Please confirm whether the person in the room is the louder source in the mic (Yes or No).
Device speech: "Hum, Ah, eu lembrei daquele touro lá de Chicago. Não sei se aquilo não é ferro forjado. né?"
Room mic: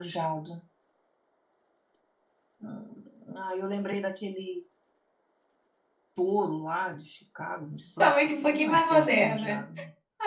Yes